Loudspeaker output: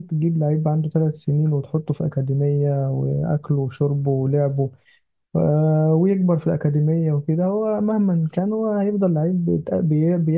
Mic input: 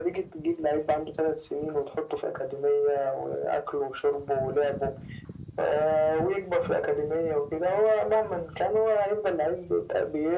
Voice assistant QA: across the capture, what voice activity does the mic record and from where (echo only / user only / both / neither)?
echo only